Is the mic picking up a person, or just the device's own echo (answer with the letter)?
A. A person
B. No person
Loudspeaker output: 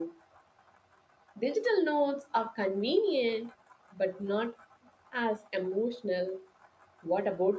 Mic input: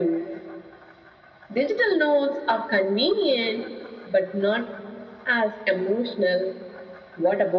B